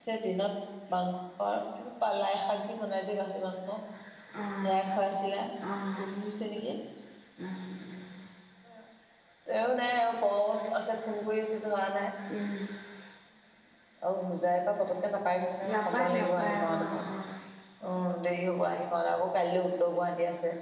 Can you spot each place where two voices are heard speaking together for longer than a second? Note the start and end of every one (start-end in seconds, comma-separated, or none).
15.7-17.1